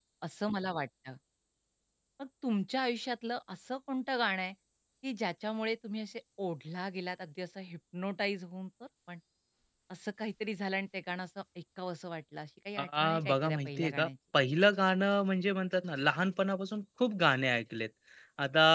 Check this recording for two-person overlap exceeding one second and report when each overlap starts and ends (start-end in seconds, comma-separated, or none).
12.8-14.1